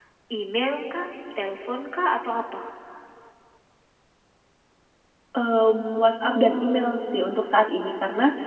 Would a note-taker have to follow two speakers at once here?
Yes, from 6.1 s

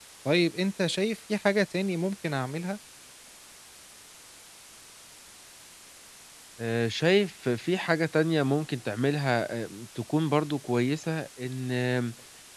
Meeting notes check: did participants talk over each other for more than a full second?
No

